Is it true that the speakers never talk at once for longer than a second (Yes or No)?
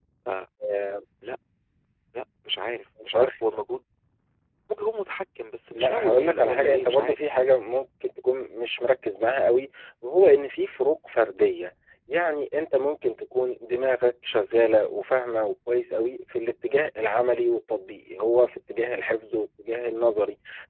No